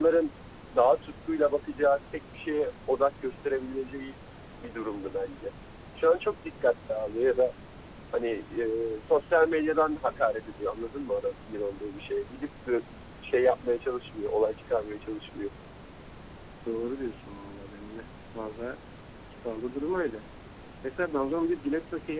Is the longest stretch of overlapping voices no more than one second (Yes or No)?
Yes